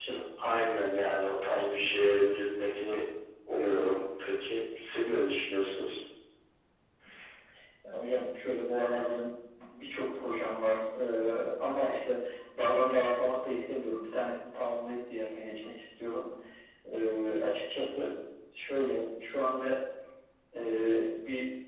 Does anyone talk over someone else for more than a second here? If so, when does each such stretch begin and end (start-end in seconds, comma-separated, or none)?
none